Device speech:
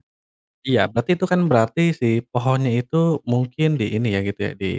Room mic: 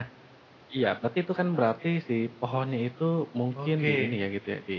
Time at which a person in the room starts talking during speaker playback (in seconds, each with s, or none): 3.5 s